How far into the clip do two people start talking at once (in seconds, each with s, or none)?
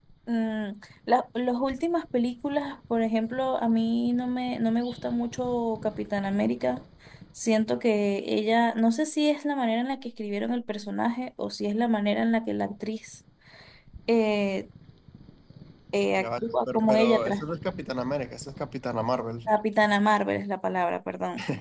16.2 s